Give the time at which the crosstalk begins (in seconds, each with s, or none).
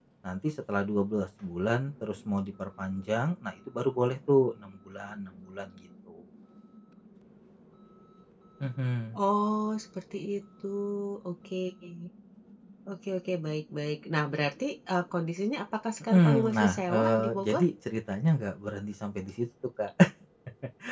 16.0 s